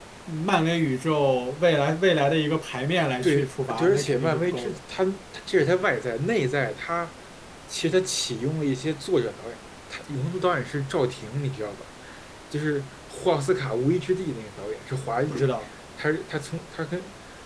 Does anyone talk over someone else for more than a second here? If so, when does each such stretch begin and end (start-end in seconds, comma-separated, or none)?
3.2-4.8